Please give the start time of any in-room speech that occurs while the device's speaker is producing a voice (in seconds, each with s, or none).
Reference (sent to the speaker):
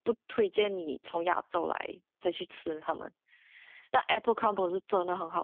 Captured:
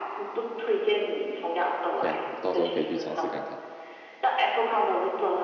2.0 s